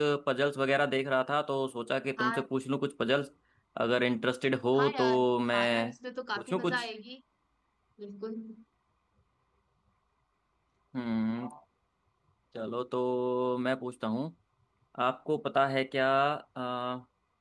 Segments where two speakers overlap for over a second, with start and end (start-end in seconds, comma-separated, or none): 4.7-5.9